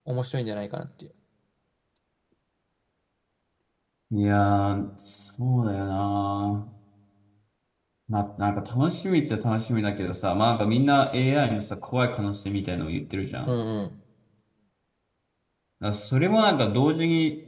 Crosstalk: none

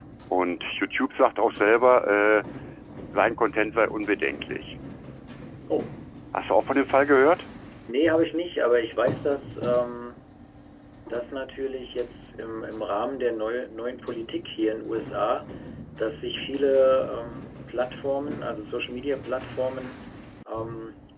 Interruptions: none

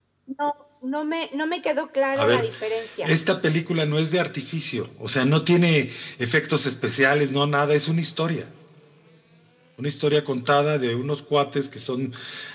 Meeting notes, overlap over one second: none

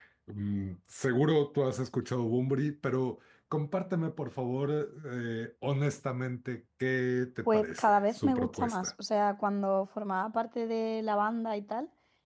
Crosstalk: present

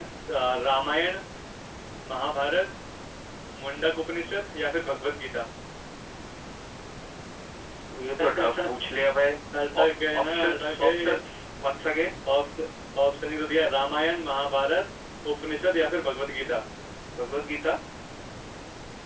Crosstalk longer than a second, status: present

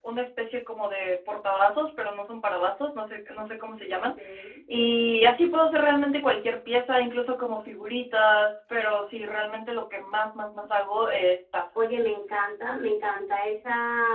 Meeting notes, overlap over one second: none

